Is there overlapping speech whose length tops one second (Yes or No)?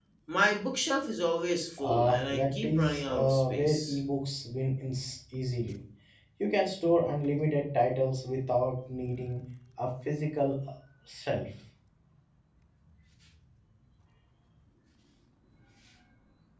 Yes